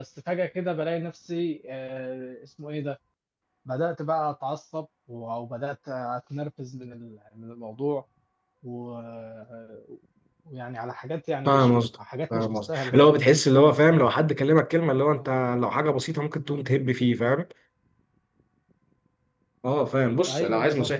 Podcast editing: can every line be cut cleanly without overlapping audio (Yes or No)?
No